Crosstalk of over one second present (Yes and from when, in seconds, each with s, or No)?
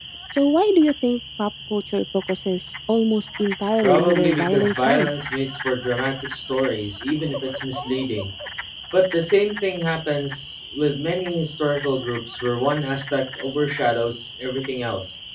Yes, from 3.8 s